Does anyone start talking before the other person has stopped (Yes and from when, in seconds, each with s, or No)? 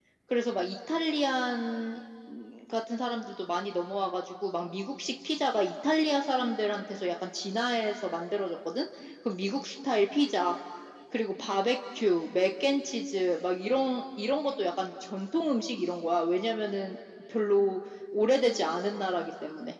No